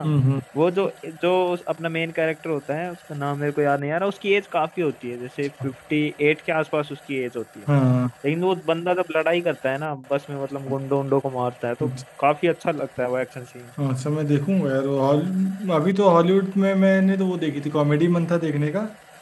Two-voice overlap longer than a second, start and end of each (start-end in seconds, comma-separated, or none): none